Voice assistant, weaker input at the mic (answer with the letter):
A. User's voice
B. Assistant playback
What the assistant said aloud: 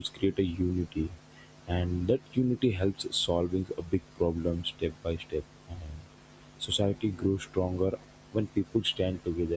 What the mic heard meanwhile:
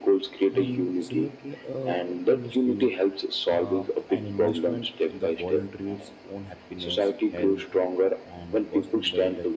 A